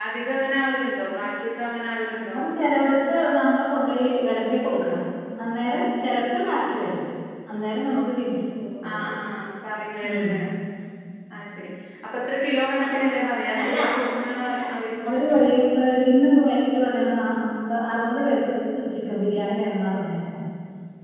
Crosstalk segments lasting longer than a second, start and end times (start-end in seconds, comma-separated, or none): none